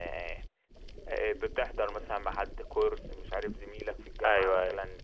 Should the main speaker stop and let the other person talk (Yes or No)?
No